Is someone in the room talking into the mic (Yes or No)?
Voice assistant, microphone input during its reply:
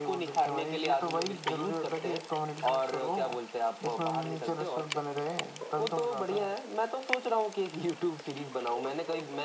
No